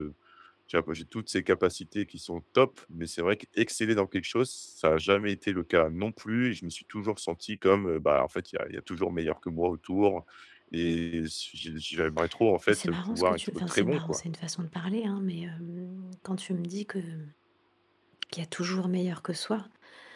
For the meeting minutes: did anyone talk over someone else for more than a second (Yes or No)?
Yes